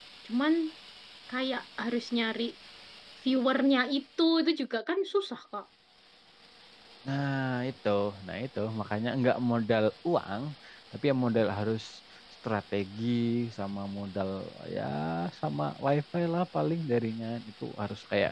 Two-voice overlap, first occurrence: none

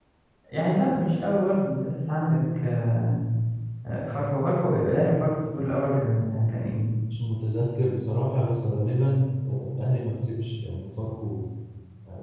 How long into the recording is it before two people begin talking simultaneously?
none

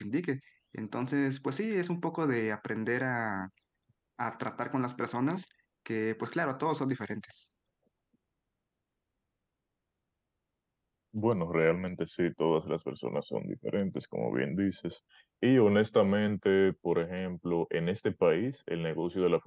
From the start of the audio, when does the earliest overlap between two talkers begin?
none

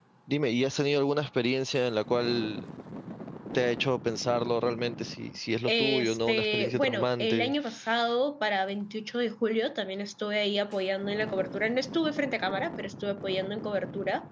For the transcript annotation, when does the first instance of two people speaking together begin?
5.7 s

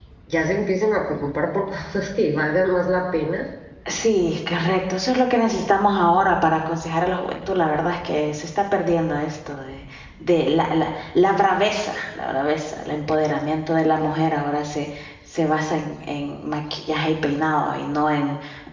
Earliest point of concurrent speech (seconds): none

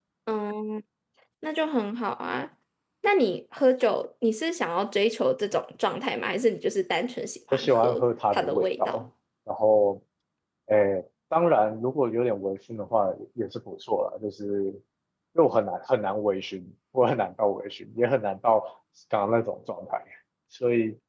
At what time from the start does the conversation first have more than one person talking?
7.5 s

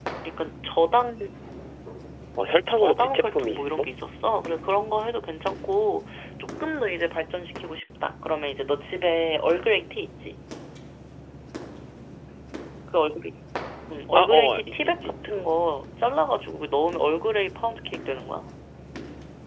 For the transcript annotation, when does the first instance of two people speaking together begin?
2.7 s

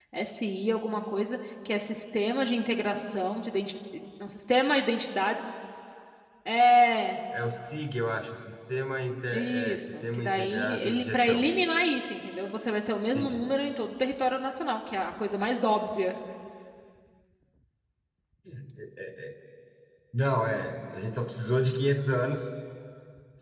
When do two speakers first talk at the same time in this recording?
9.3 s

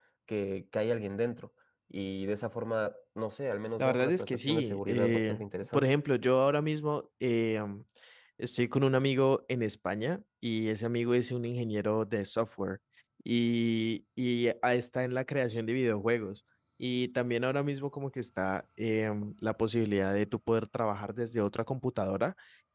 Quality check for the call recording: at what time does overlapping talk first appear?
3.8 s

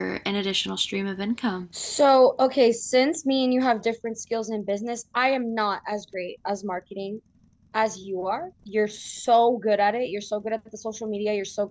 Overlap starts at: none

